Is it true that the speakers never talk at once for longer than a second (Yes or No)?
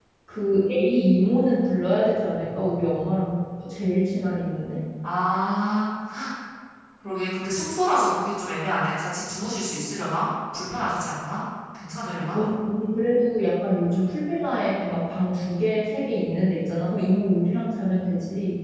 Yes